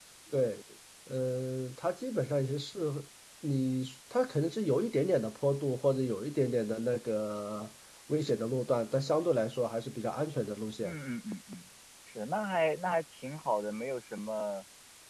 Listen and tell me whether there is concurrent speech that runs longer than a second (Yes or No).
No